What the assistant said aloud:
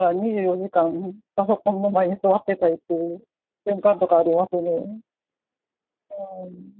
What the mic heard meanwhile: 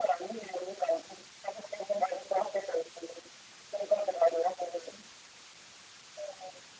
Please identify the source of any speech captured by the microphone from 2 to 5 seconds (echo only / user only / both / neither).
echo only